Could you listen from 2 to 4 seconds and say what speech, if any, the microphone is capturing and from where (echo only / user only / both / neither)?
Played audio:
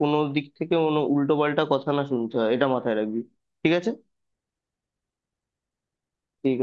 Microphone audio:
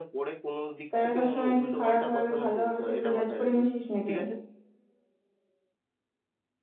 both